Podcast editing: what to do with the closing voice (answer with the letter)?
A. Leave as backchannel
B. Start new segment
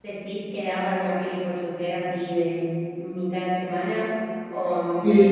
B